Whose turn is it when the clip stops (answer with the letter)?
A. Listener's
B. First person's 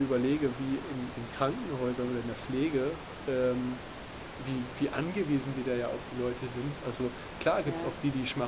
B